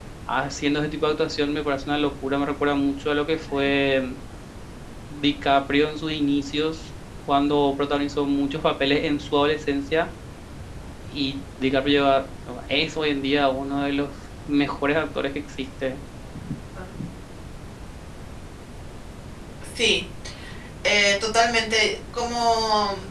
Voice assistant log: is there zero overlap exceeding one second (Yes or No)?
Yes